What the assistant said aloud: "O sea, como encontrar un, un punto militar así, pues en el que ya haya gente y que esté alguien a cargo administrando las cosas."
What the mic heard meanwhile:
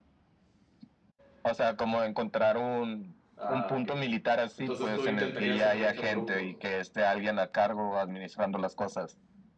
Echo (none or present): present